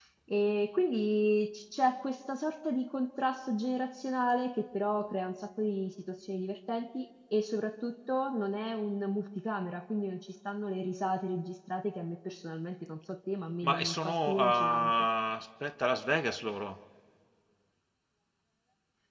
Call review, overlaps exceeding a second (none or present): present